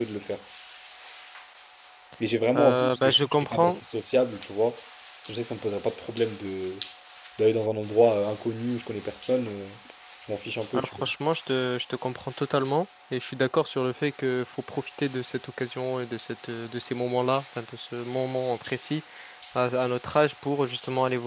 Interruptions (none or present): present